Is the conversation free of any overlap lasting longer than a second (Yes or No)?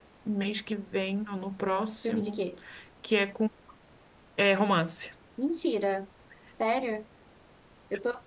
Yes